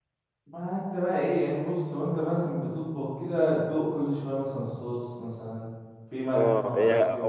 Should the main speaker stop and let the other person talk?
Yes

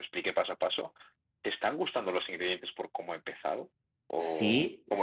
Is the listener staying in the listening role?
No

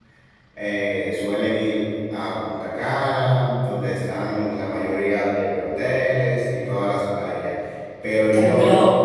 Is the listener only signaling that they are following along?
No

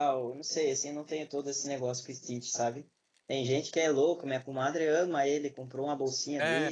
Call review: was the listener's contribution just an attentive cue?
Yes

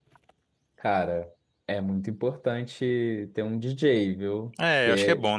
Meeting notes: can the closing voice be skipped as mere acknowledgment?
No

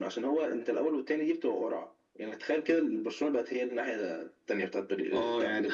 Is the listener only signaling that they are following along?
No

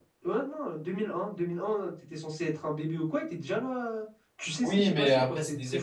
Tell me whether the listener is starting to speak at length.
Yes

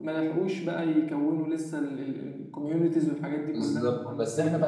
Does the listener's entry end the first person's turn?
Yes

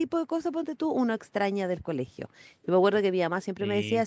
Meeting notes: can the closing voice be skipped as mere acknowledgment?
Yes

